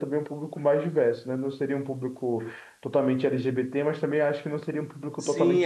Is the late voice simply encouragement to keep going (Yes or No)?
No